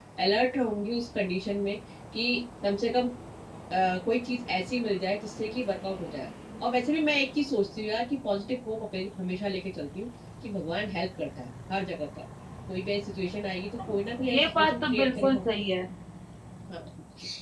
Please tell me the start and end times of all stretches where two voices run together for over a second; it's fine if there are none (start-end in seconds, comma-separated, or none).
13.8-15.4